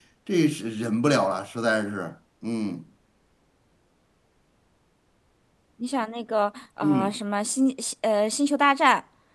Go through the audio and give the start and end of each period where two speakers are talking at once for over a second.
none

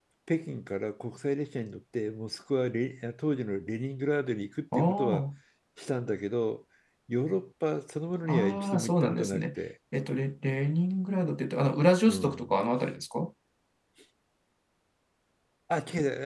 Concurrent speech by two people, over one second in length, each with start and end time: 8.2-9.4

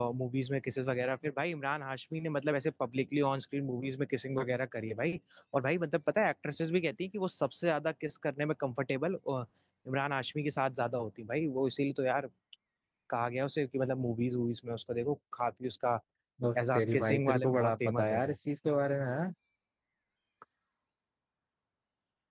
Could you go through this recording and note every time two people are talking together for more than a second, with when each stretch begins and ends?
16.6-18.3

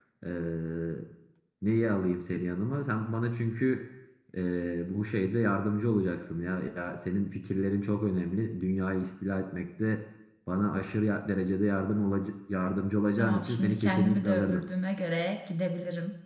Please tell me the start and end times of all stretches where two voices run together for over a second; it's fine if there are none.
13.2-14.6

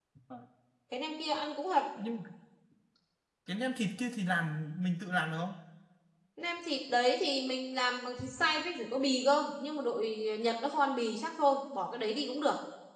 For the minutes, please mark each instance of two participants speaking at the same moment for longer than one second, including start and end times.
none

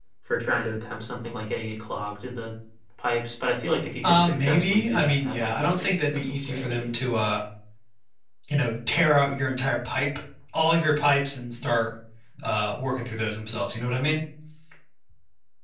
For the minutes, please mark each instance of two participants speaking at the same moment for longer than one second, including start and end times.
4.0-6.9

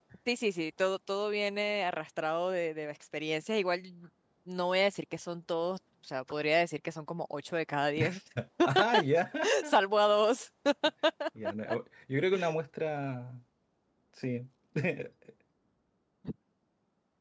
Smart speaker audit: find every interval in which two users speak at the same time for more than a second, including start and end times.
none

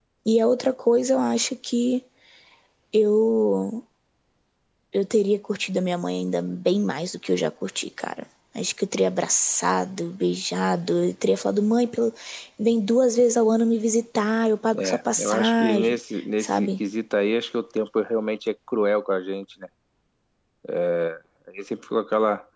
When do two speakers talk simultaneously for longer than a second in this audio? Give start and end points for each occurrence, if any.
14.8-16.0

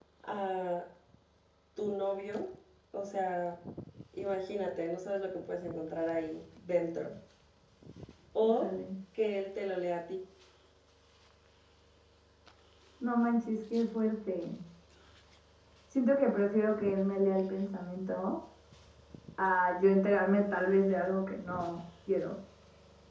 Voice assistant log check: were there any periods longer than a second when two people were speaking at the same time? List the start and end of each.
none

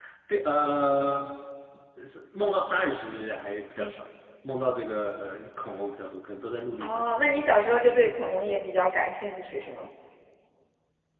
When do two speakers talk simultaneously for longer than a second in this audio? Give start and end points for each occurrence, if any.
none

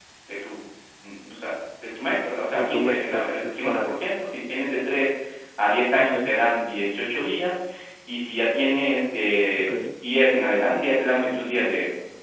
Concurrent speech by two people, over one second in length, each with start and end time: 2.6-4.0

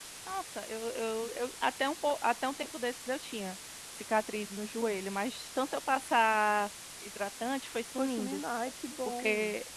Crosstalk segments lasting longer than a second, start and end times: none

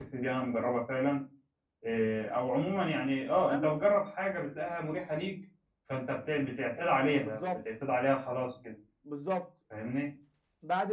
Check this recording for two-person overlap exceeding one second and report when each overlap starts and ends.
none

